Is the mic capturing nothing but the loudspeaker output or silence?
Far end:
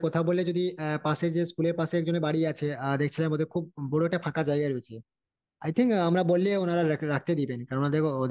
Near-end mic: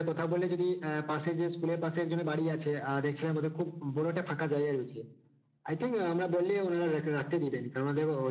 Yes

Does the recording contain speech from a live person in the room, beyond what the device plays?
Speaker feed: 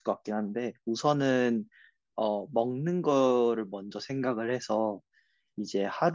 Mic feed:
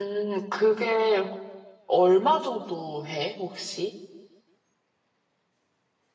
Yes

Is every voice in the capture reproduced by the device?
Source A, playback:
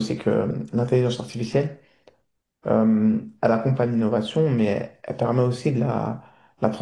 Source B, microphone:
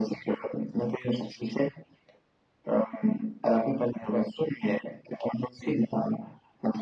Yes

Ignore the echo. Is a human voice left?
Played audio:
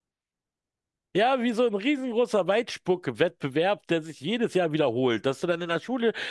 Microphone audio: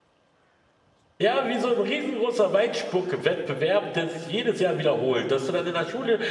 No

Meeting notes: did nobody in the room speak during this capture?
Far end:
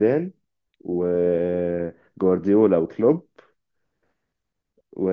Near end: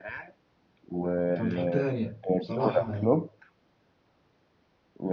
No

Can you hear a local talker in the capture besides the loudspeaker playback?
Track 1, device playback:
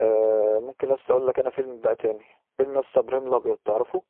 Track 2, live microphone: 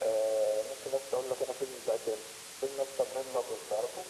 No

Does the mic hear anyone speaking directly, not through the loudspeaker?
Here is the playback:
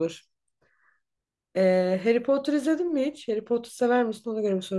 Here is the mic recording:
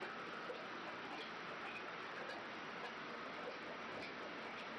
No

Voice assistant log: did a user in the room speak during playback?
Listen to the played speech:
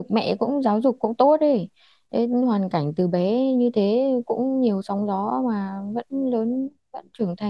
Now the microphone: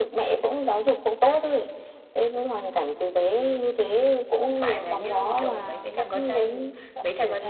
Yes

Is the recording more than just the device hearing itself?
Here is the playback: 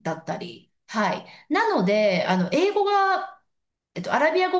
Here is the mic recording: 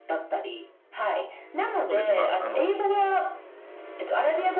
Yes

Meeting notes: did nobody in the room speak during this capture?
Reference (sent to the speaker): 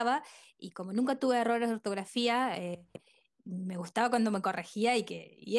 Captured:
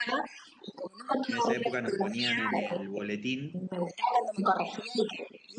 No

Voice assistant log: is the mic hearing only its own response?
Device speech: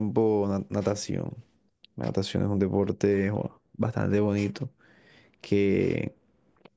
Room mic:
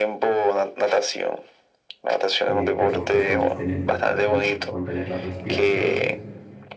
No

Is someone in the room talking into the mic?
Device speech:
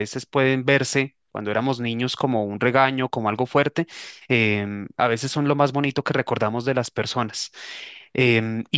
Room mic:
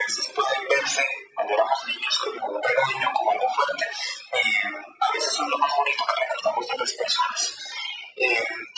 No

